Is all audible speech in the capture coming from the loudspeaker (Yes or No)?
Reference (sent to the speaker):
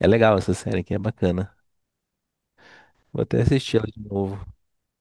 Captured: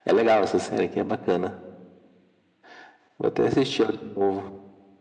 Yes